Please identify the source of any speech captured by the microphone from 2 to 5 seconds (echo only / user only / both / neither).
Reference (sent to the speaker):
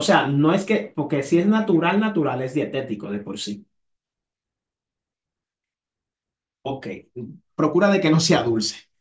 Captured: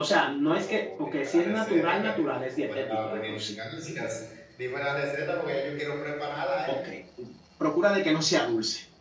both